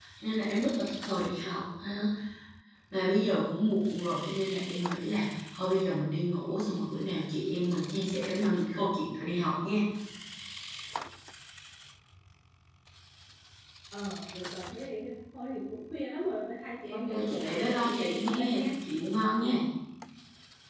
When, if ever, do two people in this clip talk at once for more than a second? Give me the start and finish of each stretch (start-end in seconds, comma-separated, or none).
16.9-18.7